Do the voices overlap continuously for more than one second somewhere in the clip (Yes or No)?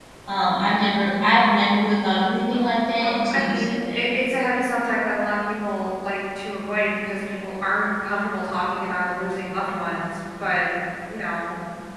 Yes